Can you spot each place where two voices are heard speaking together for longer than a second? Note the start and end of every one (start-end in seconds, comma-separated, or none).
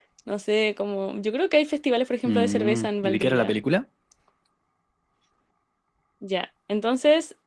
2.2-3.5